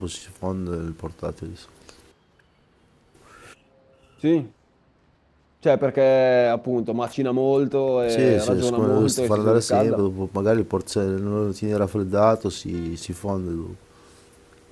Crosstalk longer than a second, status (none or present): present